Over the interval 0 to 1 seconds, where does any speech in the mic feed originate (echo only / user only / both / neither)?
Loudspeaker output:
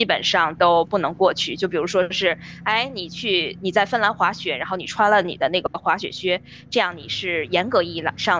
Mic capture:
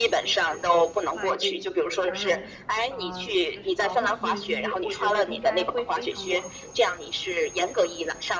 both